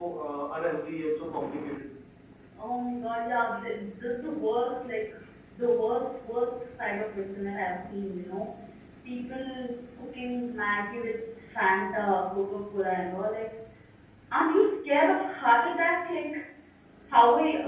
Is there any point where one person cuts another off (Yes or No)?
No